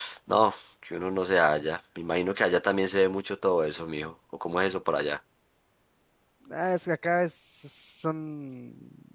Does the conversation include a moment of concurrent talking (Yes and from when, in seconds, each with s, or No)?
No